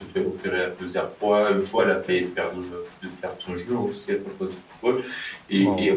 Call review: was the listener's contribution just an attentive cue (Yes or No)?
Yes